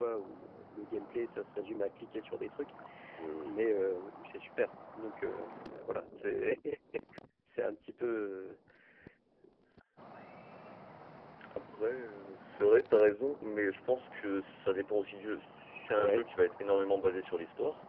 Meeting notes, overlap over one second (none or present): none